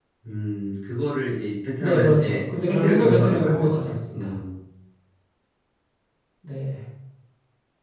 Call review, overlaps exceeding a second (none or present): present